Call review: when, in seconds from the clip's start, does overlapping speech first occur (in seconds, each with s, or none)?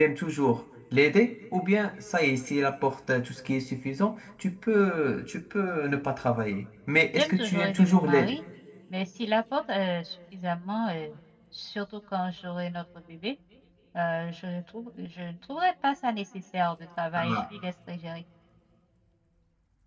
7.2 s